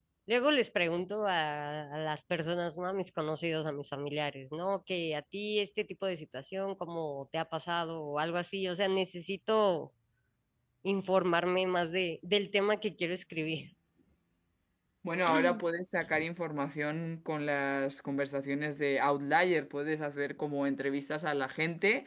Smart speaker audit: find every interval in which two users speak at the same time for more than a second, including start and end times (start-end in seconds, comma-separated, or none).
none